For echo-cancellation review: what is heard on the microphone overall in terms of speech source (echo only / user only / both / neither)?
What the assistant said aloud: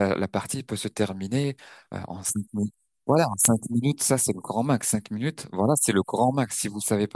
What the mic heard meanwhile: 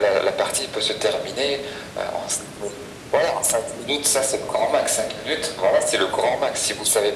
echo only